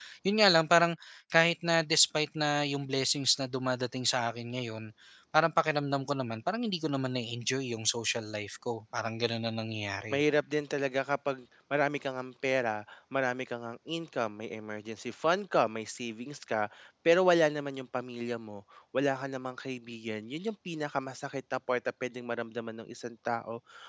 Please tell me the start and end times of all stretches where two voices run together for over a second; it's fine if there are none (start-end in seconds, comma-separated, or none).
none